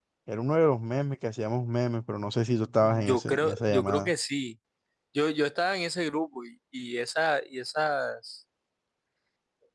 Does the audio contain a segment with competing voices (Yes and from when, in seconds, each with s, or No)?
Yes, from 2.8 s